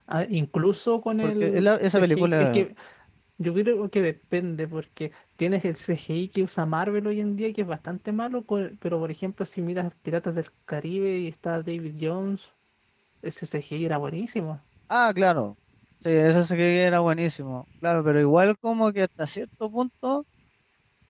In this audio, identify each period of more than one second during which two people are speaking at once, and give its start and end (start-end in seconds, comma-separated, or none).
1.2-2.7